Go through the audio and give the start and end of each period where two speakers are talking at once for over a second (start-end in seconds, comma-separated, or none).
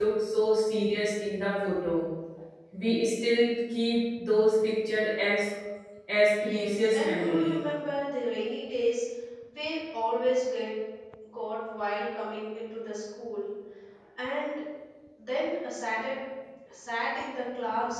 6.3-7.7